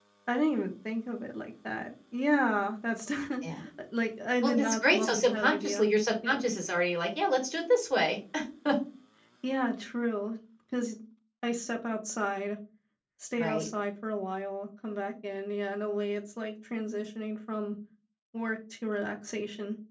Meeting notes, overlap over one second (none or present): present